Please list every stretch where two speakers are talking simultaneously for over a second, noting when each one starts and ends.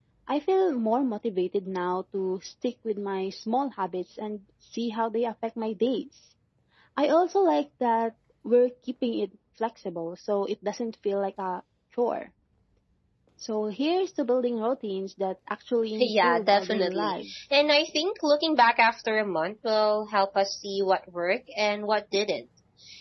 16.0-17.3

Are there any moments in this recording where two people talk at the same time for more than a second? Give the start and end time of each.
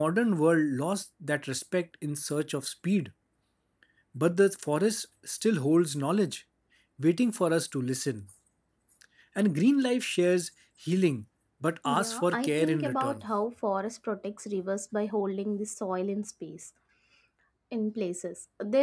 11.8-13.2

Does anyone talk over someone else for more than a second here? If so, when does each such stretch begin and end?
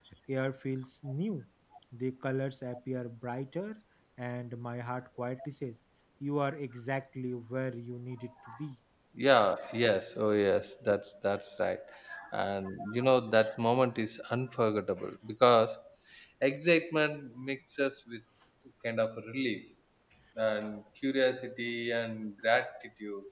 none

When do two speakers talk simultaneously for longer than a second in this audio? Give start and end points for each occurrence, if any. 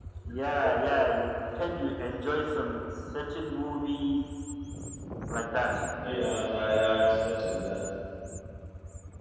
none

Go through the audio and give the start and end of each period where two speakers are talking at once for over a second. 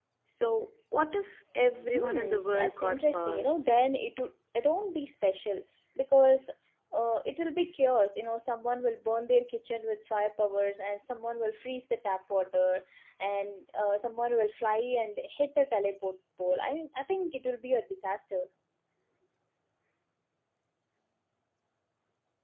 1.9-3.6

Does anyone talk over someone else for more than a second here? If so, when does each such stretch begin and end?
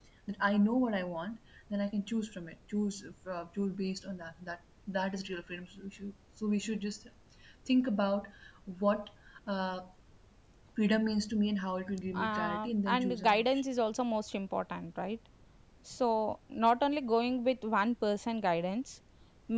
12.2-13.4

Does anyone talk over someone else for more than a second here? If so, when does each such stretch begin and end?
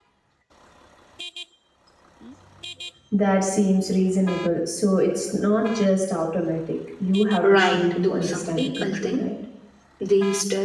7.4-9.2

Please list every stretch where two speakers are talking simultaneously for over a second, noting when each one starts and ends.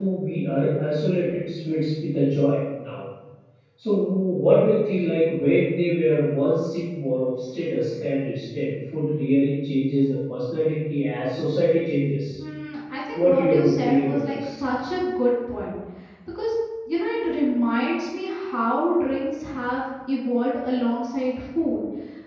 13.1-14.4

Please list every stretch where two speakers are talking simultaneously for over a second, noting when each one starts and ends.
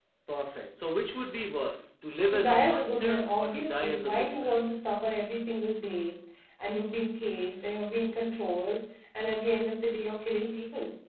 2.3-4.6

